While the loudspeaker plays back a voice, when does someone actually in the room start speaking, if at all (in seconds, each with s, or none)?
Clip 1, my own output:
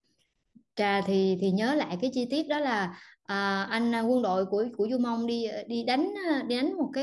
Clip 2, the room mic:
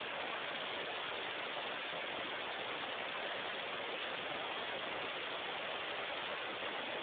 none